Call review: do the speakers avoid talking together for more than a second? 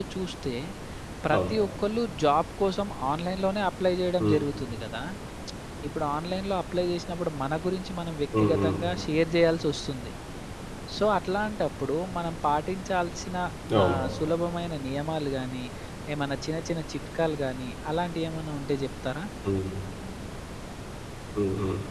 Yes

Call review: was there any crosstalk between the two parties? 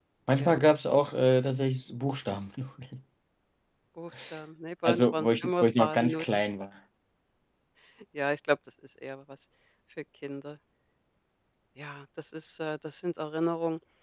Yes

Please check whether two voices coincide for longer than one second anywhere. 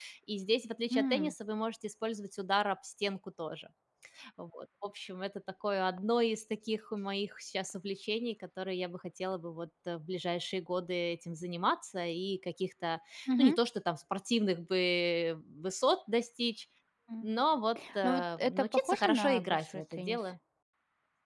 Yes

